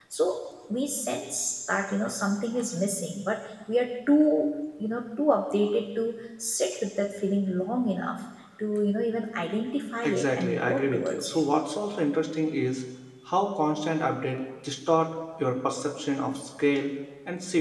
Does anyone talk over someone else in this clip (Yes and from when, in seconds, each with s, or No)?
Yes, from 10.0 s